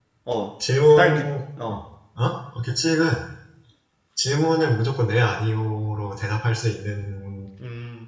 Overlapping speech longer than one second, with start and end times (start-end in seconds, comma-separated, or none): none